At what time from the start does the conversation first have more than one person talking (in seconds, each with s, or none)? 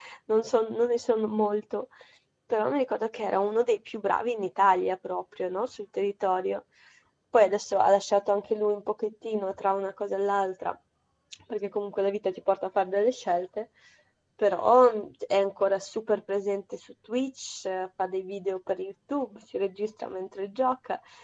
none